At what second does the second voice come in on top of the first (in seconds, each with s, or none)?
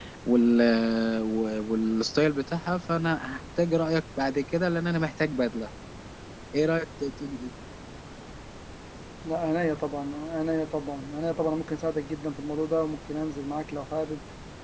none